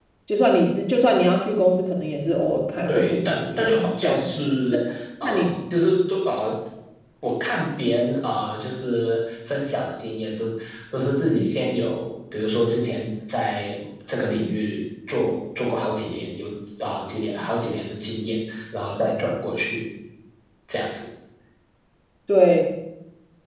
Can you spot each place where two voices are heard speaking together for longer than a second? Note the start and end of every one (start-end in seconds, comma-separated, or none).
2.9-4.2